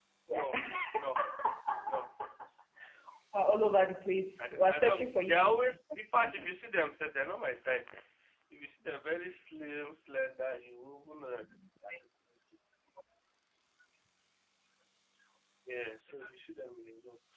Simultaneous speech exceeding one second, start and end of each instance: 4.4-5.8

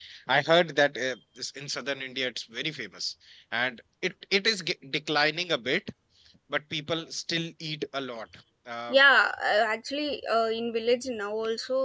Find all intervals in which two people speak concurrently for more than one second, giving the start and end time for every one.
none

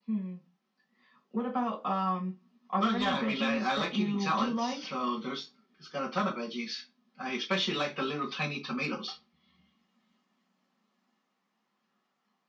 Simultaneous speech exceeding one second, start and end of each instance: 2.8-4.9

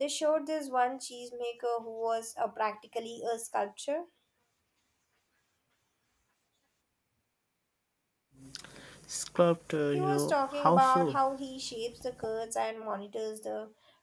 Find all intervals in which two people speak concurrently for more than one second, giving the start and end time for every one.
9.9-11.2

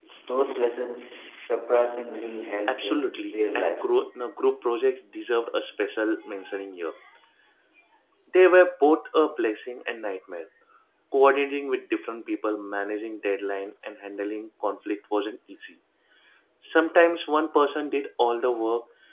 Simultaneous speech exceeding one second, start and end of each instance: 2.7-4.1

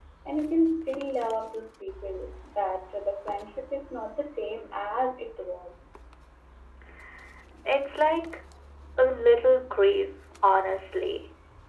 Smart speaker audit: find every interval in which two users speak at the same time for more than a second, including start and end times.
none

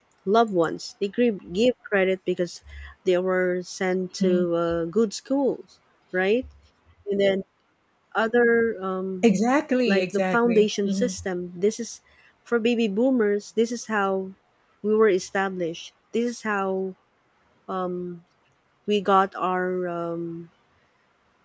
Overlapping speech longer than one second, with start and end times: 9.9-11.1

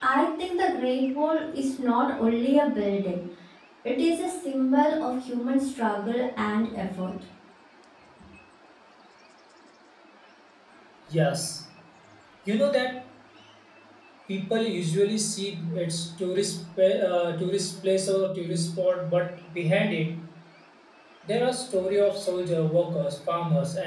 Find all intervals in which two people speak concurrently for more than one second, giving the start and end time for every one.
none

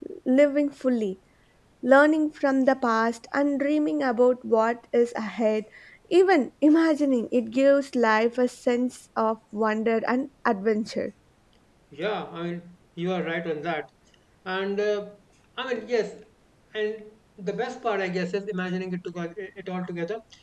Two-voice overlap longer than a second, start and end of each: none

